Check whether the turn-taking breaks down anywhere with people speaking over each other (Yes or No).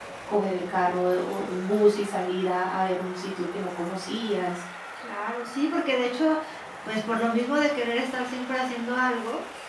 No